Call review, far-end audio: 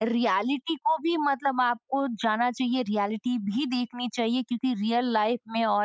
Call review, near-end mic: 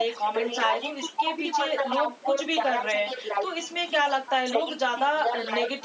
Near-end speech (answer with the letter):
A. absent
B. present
B